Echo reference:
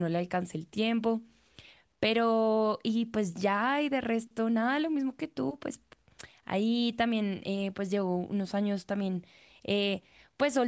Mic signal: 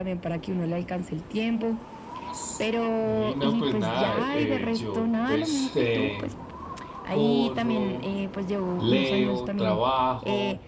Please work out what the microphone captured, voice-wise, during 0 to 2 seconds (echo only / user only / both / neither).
echo only